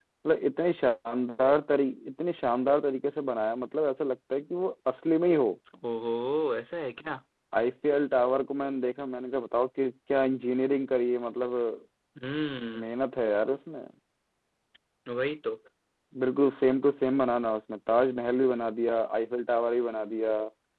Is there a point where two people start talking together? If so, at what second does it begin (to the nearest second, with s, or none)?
none